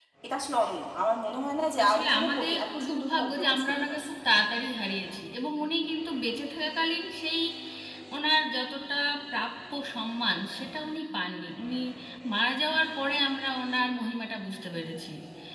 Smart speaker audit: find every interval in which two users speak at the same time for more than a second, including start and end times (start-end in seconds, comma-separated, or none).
1.8-4.1